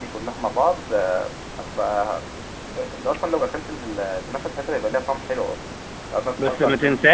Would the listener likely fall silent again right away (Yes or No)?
No